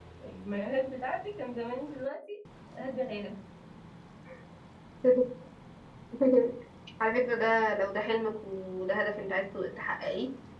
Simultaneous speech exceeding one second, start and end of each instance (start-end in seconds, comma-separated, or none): none